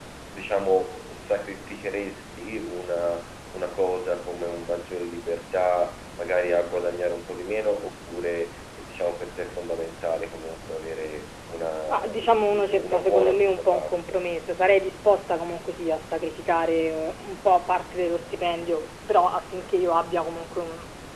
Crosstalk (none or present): present